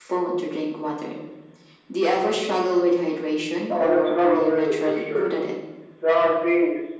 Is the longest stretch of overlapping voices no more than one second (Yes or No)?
No